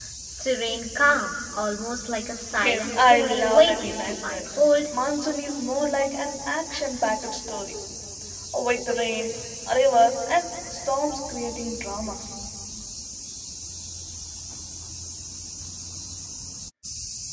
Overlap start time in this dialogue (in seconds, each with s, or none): 2.5 s